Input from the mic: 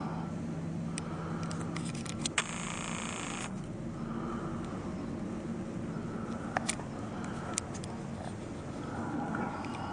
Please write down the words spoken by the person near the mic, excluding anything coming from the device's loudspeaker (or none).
none